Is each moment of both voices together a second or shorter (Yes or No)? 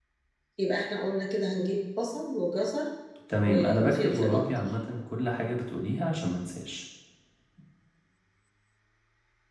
No